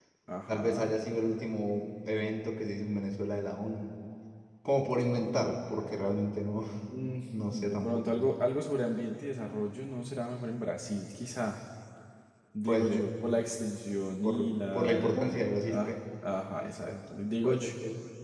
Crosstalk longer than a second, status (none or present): present